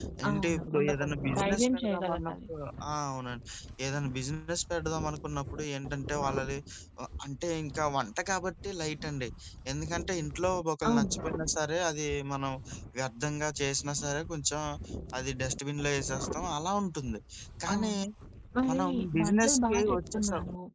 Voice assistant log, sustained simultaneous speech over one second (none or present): present